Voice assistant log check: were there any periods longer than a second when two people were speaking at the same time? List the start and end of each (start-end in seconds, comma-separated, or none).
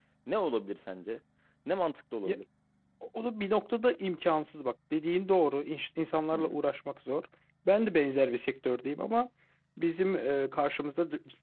none